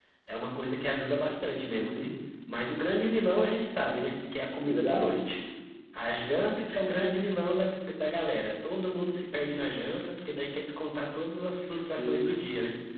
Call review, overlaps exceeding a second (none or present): none